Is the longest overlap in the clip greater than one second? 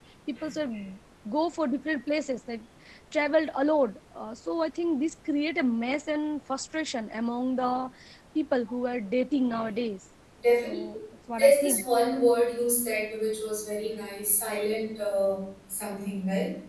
No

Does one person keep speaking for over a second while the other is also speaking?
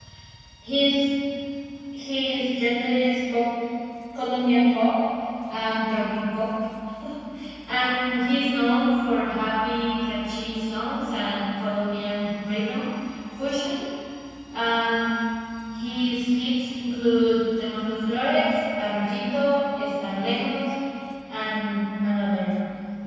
No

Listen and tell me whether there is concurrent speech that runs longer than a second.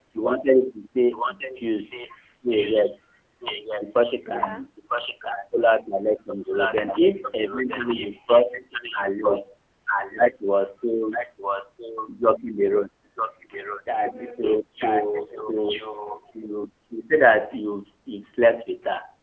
Yes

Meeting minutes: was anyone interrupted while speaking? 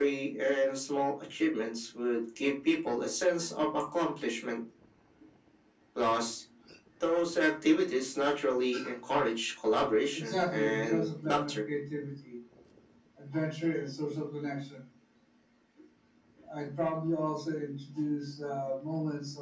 Yes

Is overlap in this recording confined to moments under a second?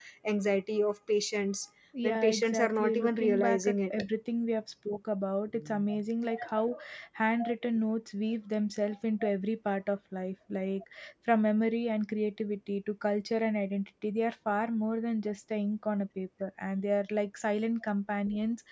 No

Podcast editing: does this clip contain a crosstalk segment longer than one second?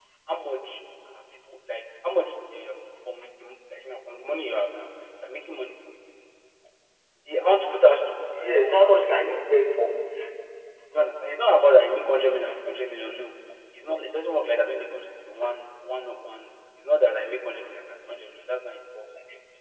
No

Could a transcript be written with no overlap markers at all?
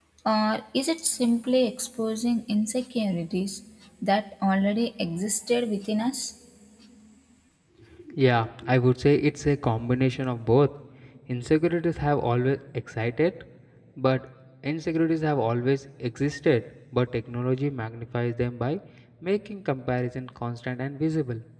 Yes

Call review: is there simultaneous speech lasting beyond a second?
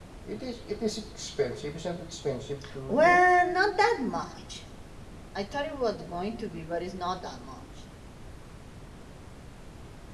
No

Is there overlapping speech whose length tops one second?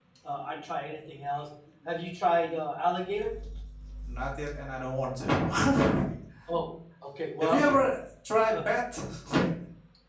No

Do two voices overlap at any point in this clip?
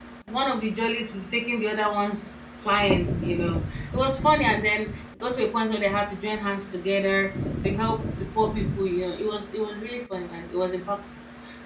No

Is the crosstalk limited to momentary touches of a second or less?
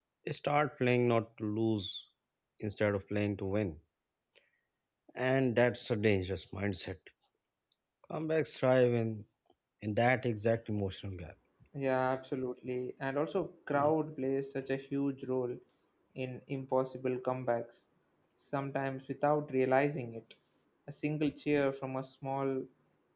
Yes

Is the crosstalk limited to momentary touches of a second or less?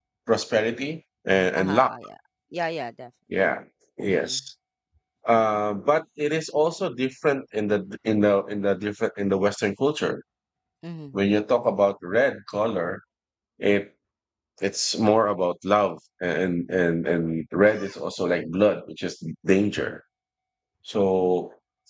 Yes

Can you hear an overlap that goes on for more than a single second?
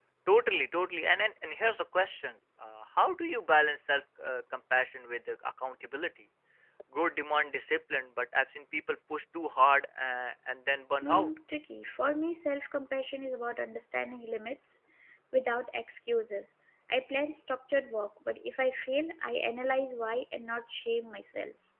No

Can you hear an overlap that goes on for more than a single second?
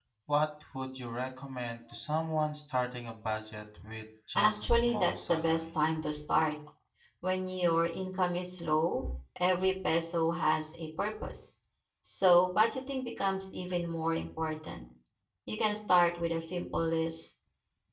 Yes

